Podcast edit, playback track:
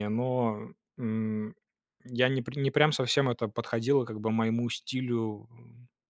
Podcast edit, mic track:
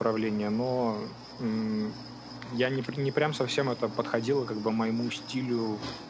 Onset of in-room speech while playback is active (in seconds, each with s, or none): none